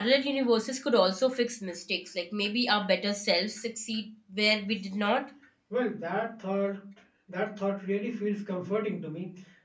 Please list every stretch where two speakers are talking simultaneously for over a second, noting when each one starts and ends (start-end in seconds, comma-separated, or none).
none